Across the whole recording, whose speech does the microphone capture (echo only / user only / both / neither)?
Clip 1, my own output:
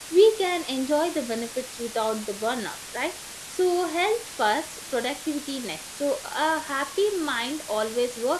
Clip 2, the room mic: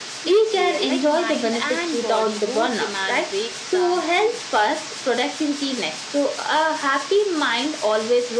both